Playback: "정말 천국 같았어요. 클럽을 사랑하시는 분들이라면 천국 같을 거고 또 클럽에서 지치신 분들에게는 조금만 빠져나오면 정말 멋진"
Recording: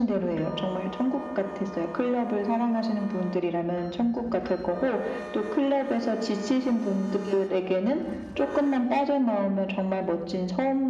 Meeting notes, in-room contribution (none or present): none